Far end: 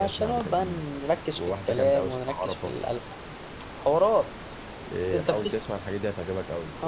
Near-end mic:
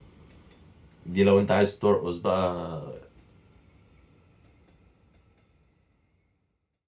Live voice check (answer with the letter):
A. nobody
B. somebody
B